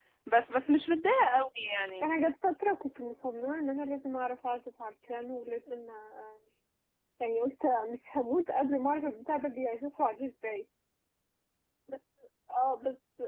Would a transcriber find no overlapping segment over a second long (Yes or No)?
Yes